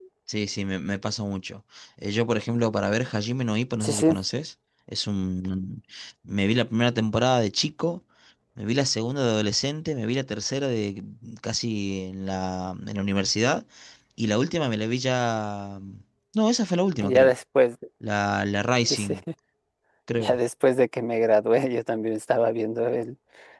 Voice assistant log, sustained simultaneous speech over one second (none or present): none